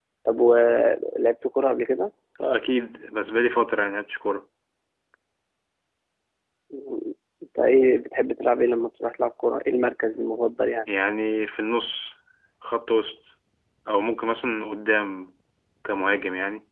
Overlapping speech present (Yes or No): No